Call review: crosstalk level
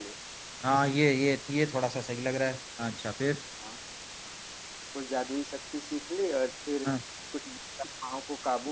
none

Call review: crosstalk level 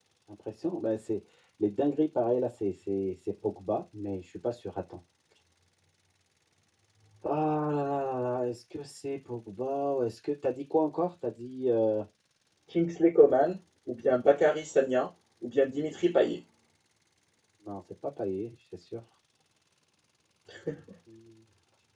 none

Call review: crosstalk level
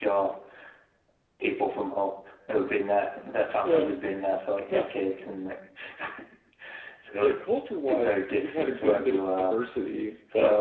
present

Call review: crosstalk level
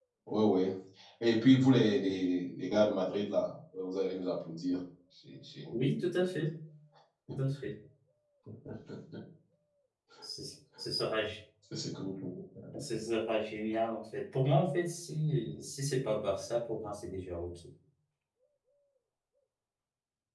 none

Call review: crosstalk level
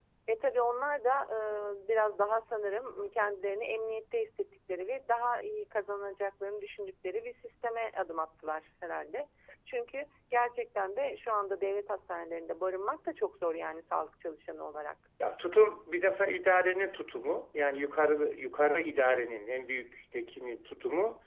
none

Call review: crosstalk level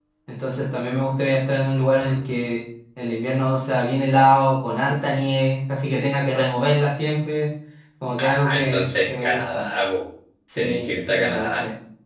present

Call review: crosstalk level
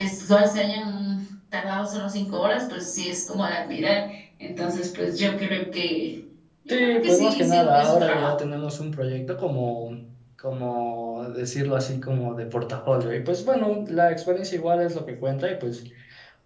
present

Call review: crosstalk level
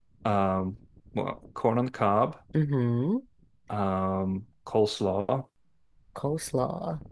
none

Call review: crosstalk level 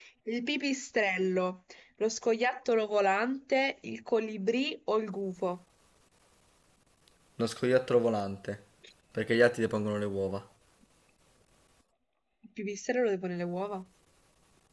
none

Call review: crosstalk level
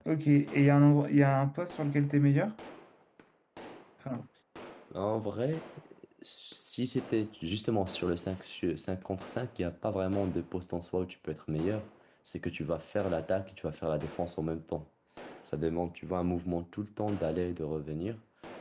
none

